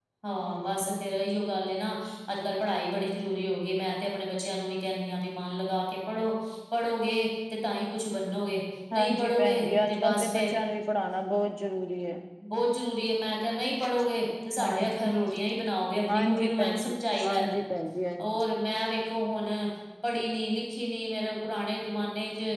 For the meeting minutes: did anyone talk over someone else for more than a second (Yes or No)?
Yes